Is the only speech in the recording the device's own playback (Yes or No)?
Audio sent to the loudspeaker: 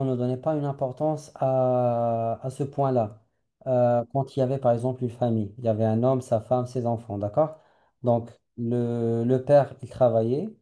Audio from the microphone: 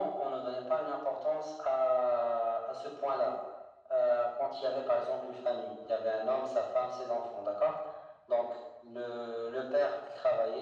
Yes